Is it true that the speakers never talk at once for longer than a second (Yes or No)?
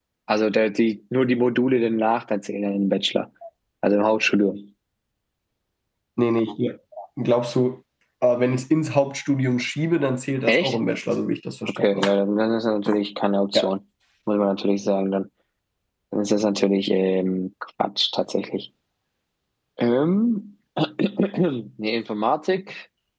Yes